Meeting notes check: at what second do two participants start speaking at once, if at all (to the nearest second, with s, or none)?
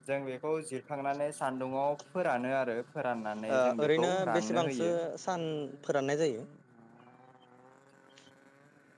3 s